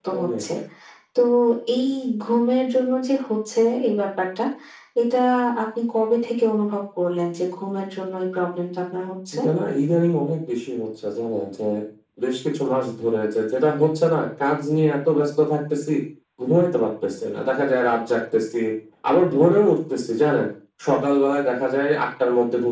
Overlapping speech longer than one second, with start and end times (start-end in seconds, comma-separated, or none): none